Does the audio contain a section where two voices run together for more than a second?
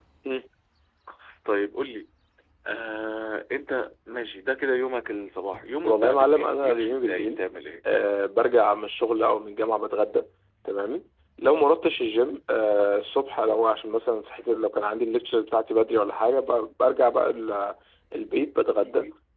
Yes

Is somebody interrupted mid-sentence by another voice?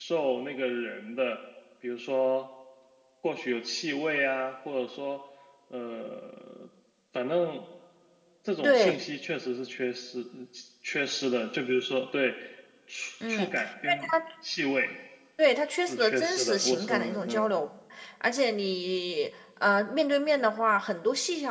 Yes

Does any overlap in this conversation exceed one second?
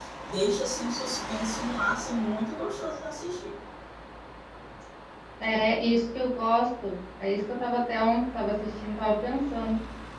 No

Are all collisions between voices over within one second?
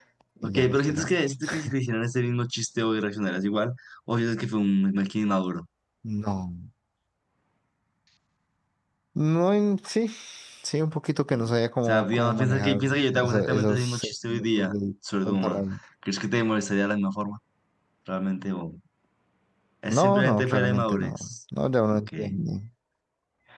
No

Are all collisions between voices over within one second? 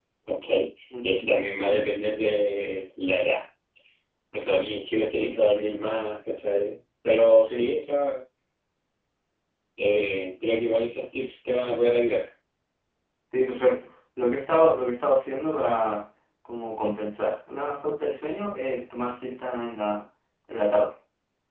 Yes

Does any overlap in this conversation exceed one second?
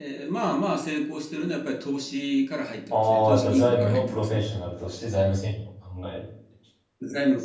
Yes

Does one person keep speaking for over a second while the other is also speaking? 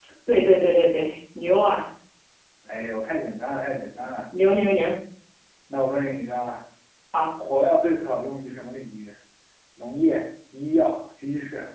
No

